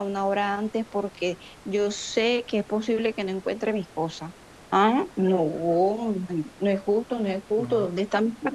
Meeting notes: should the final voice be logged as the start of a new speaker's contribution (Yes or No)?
No